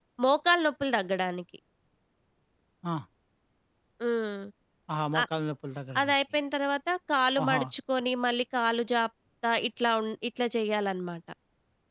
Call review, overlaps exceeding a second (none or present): none